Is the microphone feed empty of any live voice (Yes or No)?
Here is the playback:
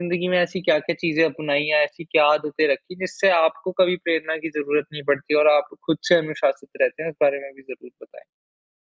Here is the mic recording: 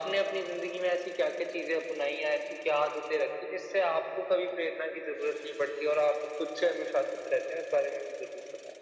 Yes